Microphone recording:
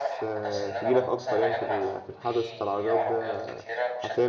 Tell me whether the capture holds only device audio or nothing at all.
No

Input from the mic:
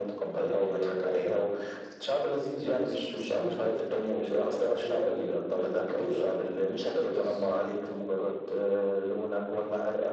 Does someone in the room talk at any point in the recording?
No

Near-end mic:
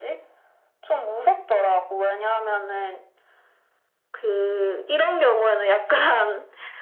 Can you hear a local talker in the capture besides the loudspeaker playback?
No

